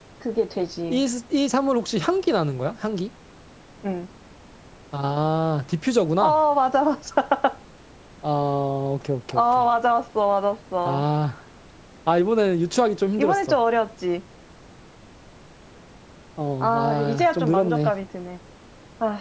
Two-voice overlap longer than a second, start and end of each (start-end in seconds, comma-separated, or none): 16.6-17.9